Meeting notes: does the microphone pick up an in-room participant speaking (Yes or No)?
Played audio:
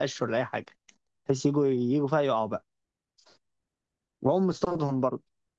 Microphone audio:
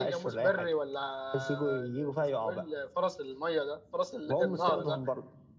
Yes